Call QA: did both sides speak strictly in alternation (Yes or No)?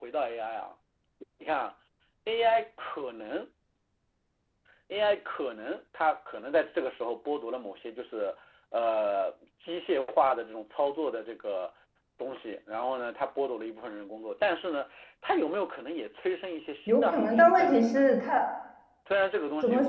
No